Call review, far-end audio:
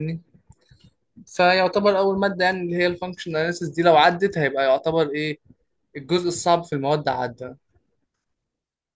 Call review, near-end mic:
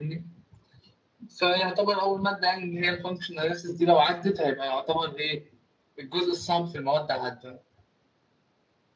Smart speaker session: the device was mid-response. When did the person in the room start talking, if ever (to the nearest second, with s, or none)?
none